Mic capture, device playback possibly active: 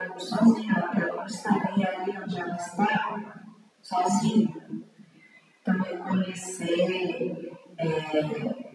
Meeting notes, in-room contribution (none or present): none